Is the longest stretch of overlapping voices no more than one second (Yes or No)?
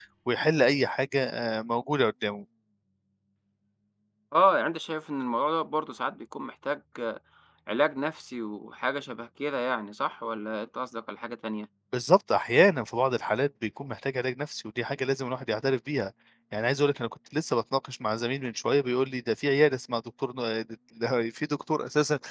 Yes